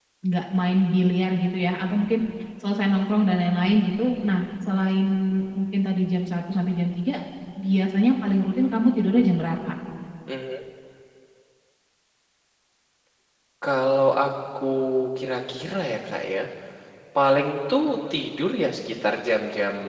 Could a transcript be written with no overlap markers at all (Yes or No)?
Yes